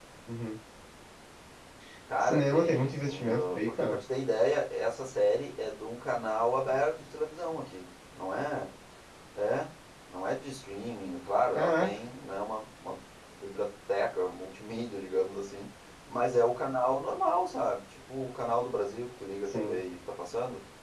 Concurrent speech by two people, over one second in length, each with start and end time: 2.2-4.0

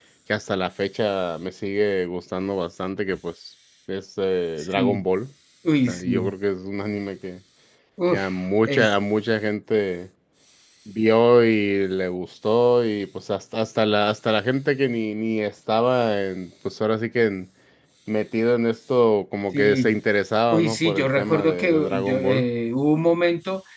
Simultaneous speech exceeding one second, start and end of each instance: 20.5-22.4

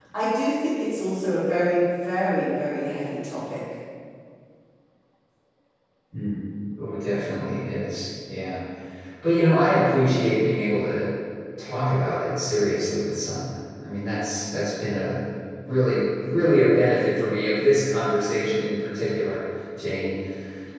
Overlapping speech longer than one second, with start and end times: none

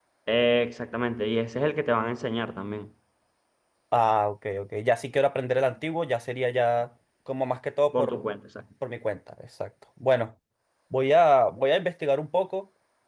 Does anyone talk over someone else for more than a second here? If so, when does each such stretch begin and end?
none

